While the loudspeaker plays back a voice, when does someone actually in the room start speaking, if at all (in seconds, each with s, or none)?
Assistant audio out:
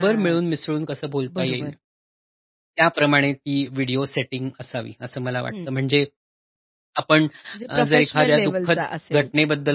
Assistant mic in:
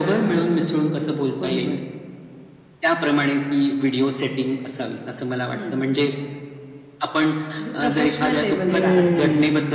8.7 s